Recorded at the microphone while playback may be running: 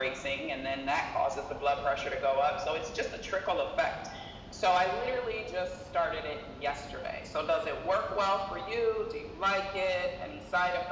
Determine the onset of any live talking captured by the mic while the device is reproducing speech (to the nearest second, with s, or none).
none